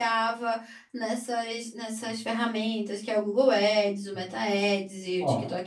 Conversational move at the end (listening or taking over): listening